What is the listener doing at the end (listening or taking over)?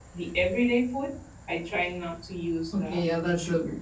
taking over